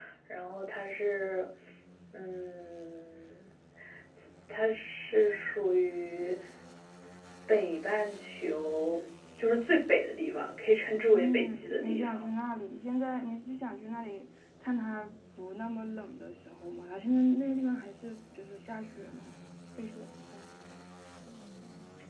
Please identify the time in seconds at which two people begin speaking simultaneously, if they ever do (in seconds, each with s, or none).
10.9 s